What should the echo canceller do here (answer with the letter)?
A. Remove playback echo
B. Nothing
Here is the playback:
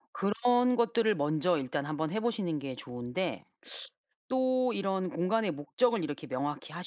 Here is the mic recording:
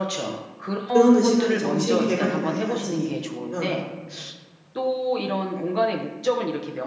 A